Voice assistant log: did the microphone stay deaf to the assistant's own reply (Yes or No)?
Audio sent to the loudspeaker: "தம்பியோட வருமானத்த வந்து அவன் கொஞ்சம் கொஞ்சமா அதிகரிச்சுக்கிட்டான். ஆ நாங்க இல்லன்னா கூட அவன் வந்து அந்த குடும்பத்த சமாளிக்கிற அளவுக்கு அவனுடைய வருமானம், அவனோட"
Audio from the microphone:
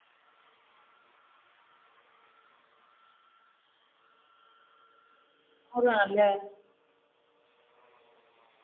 Yes